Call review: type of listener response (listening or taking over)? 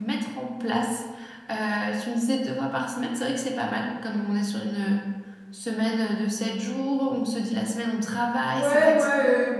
taking over